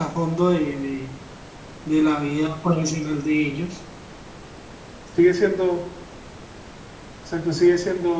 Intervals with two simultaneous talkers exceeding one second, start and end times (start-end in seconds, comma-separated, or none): none